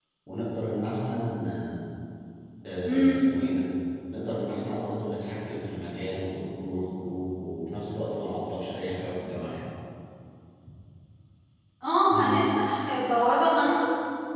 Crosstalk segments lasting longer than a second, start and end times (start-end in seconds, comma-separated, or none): none